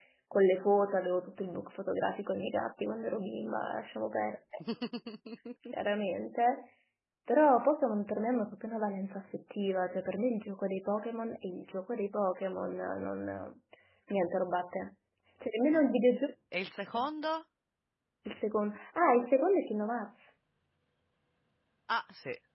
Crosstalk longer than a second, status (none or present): none